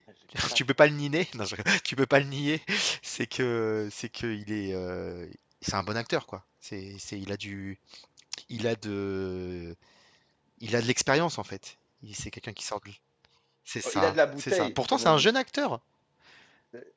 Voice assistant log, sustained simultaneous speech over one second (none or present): present